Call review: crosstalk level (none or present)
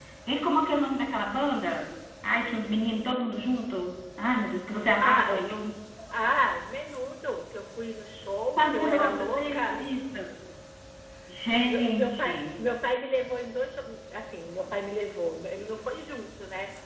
present